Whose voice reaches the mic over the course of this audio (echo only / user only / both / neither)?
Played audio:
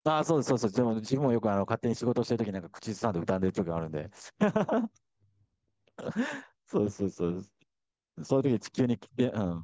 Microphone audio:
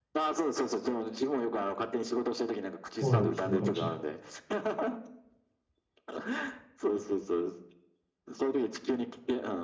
both